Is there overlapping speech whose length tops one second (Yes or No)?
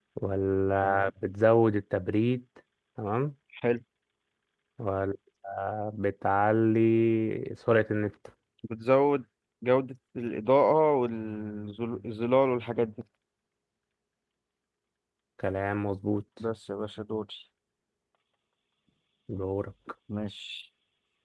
No